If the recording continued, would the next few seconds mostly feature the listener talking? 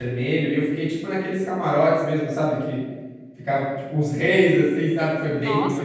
Yes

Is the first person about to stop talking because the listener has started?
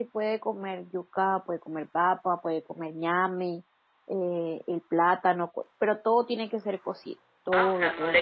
Yes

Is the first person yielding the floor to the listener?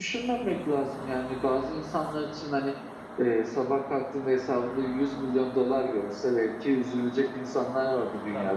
Yes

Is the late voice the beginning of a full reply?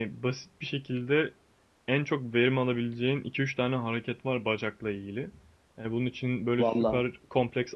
No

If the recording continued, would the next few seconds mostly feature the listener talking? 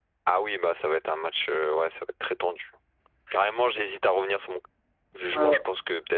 Yes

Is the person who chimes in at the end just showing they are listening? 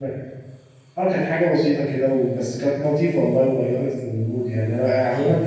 Yes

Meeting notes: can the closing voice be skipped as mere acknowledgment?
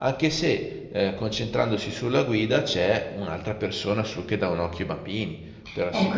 No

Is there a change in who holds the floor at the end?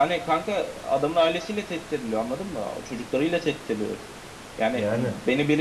No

